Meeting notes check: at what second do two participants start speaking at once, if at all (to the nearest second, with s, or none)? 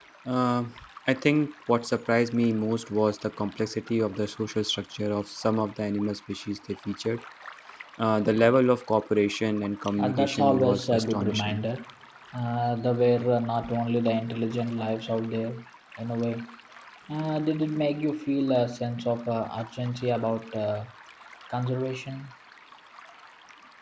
10 s